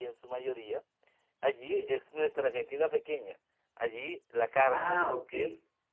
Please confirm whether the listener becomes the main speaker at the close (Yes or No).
No